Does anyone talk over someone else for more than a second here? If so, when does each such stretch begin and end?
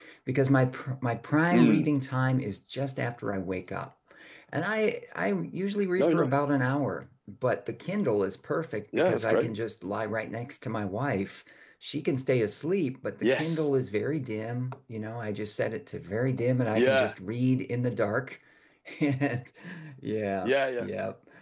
none

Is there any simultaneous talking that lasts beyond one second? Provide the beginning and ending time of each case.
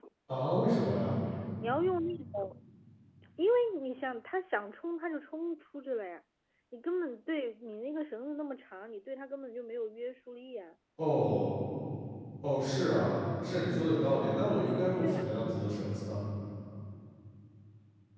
none

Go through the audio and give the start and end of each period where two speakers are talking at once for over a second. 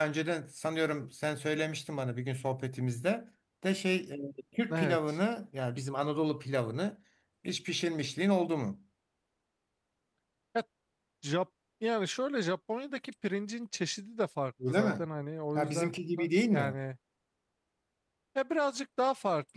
15.6-16.8

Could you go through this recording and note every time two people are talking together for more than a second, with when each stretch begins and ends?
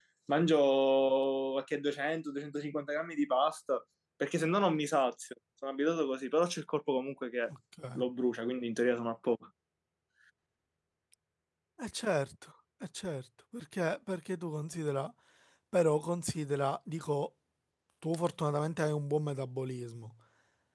none

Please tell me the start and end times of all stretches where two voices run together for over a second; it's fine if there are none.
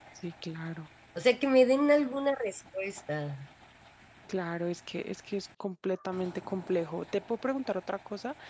none

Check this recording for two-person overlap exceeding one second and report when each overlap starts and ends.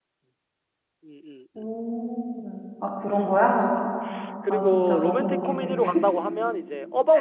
4.5-5.8

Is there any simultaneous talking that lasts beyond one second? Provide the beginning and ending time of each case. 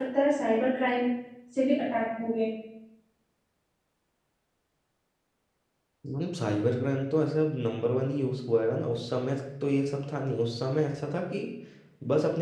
none

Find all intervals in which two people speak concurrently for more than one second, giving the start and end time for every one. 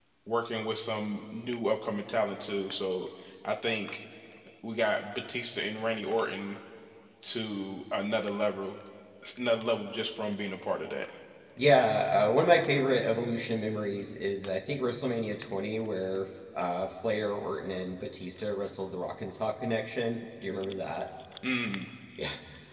none

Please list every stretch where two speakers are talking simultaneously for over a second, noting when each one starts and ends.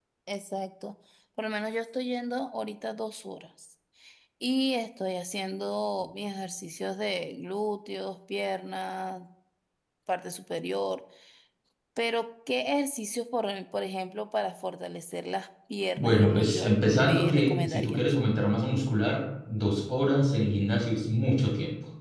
16.0-18.0

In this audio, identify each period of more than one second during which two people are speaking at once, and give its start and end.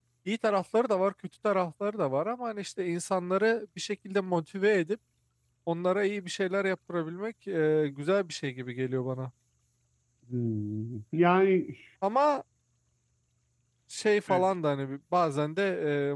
none

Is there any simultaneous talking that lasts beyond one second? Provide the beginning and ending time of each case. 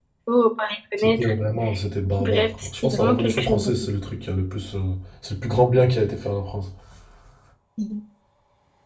2.2-3.7

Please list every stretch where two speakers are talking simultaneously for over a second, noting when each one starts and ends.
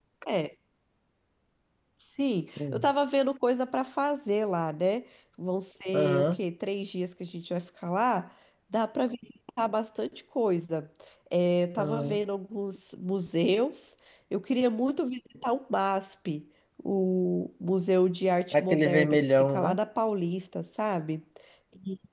18.5-19.8

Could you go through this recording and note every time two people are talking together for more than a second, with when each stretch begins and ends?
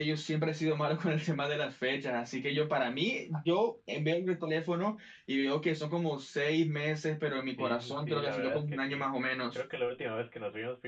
7.6-9.0

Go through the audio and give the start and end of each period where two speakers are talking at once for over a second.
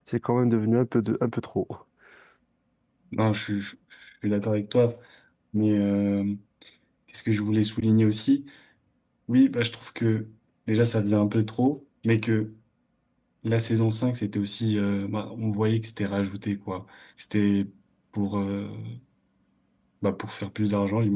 none

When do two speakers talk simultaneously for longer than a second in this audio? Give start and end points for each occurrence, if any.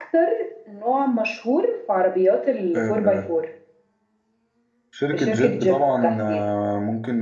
5.1-6.4

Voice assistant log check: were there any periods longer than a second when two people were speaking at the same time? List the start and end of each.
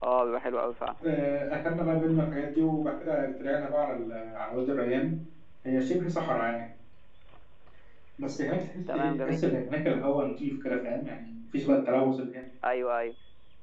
none

